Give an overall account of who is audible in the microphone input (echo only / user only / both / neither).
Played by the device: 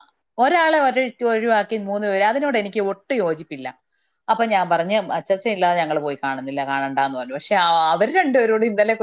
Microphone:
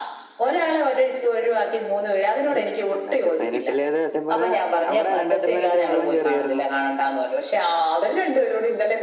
both